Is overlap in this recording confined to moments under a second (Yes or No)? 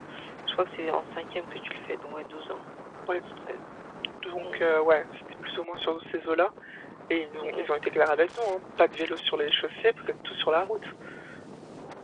Yes